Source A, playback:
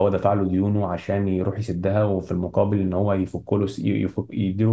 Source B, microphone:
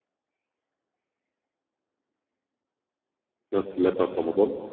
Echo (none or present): none